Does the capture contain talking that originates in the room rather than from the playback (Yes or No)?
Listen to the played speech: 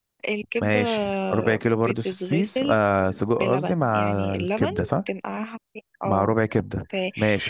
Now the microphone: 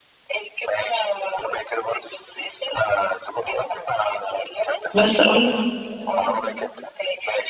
Yes